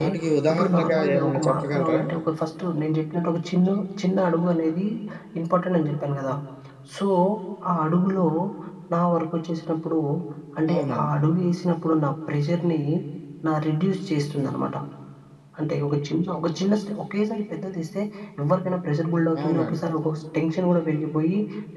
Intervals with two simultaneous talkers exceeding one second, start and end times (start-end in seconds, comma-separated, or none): 0.5-2.0